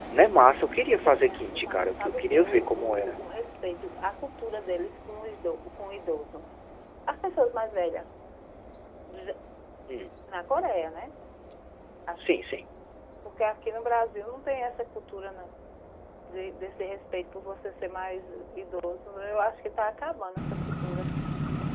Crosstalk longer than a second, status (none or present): present